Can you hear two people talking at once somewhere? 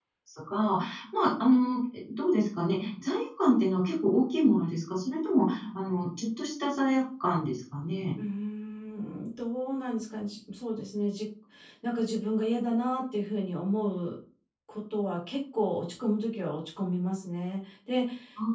No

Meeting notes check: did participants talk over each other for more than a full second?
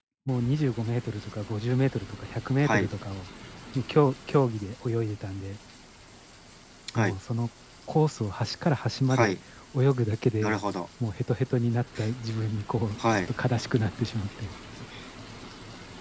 No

